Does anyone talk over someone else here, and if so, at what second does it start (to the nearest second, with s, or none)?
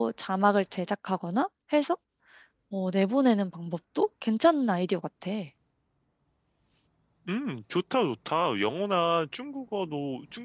none